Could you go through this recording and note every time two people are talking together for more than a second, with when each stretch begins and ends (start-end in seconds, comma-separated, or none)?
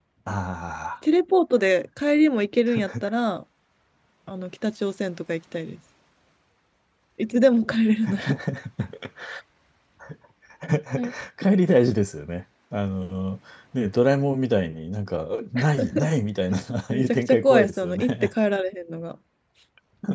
16.9-18.3